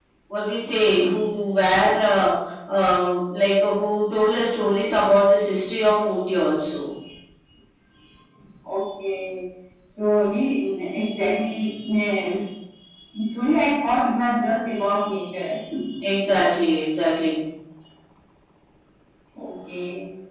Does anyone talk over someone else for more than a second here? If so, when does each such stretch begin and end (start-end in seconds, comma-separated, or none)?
none